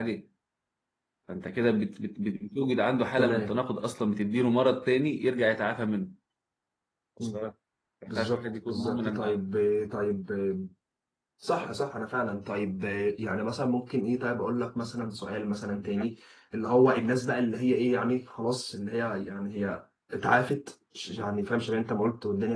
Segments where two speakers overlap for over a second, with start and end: 8.1-9.4

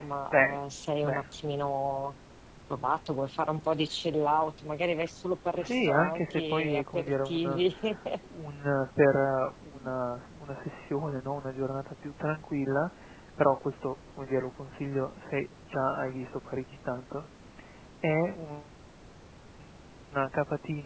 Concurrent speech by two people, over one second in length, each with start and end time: 5.6-7.6

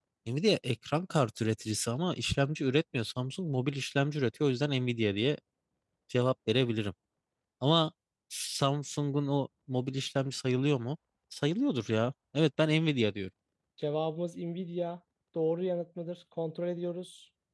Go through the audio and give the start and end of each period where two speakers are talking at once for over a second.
none

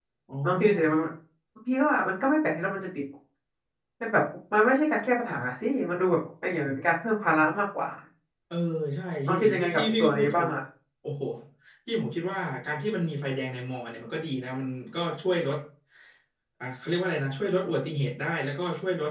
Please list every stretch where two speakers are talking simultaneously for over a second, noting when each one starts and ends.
9.3-10.5

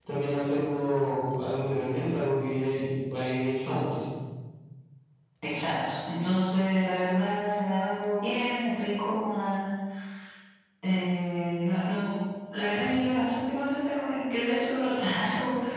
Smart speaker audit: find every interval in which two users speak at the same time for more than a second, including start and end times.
none

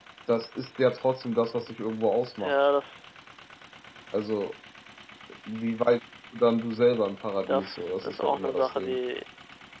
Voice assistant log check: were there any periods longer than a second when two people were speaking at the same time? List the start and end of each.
7.5-9.0

